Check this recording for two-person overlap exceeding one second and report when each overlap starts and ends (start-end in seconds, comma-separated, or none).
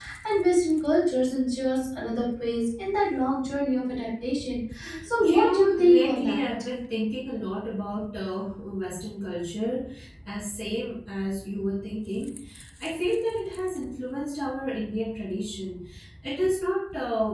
5.2-6.4